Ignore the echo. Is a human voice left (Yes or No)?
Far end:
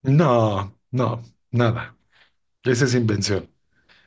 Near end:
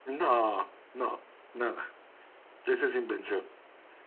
No